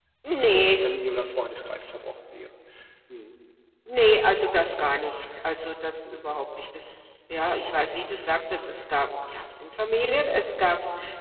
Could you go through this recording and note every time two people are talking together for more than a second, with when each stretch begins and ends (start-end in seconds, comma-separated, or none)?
none